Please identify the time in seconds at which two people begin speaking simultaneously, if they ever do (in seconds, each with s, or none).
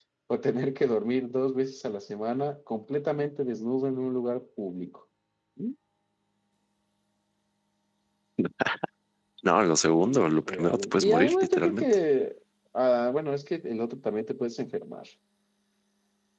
9.9 s